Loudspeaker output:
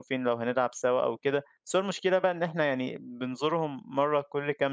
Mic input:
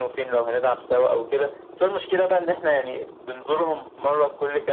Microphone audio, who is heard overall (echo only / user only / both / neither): echo only